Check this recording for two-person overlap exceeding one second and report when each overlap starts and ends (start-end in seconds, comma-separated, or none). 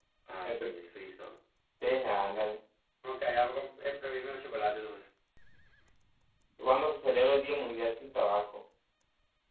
none